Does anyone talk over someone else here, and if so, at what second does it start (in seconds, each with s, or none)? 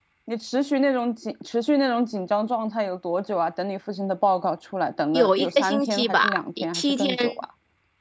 5.1 s